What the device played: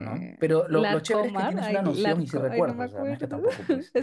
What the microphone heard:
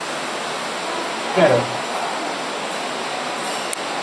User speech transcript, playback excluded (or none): Claro,